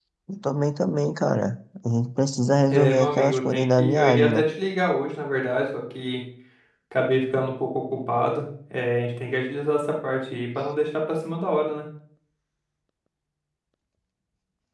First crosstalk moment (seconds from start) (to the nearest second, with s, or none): 3 s